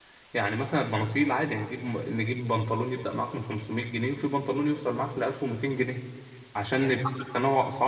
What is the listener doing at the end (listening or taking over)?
listening